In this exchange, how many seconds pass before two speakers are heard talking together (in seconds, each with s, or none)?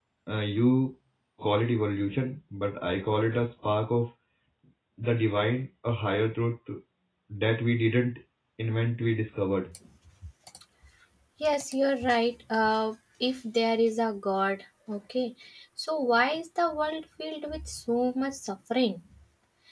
none